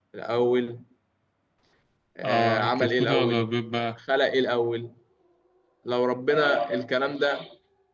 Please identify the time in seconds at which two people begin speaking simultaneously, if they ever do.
2.2 s

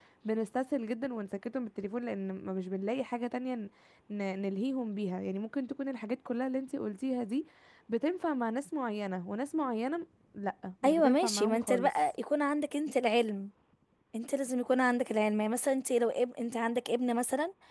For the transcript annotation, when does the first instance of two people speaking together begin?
10.8 s

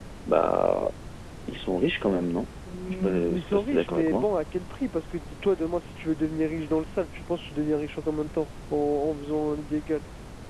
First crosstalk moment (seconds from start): 3.0 s

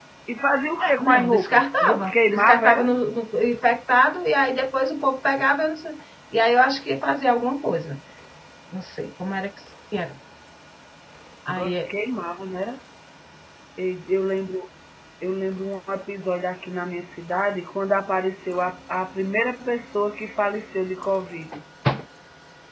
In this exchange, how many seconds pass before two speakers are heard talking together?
0.8 s

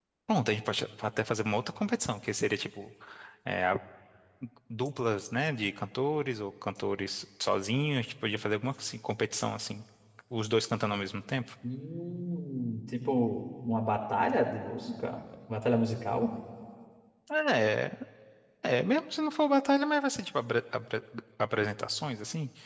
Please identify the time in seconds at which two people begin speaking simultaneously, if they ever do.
none

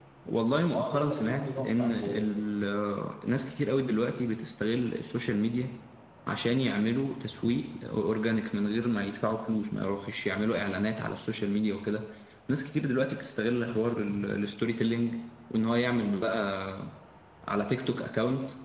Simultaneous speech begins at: 0.8 s

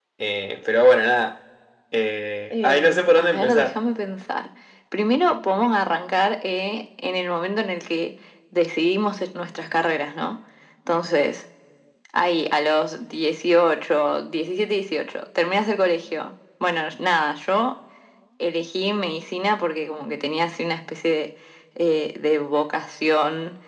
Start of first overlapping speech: 2.5 s

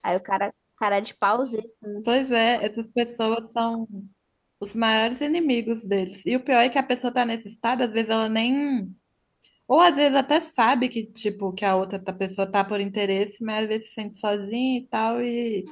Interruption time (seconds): none

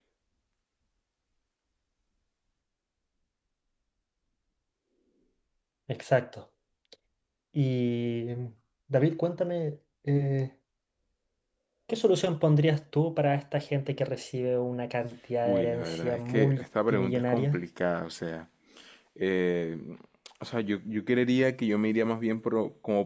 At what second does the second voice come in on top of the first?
15.4 s

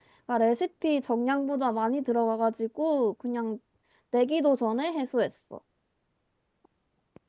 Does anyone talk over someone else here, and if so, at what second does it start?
none

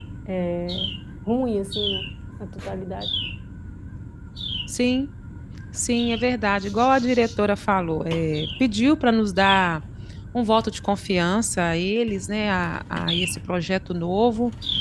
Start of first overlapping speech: none

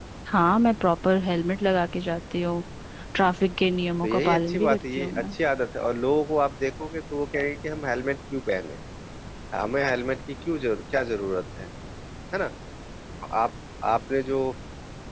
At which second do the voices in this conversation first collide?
4.0 s

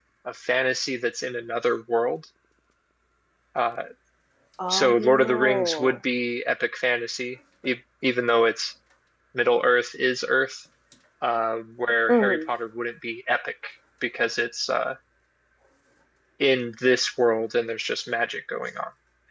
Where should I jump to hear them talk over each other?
4.7 s

